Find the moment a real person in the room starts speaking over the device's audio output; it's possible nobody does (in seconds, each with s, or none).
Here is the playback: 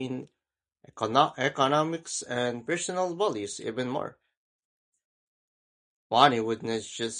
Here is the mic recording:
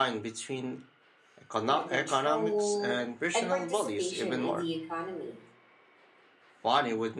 1.6 s